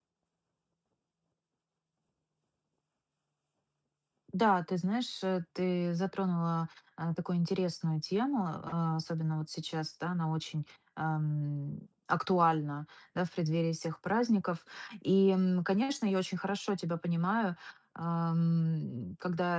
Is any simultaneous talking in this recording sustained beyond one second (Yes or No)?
No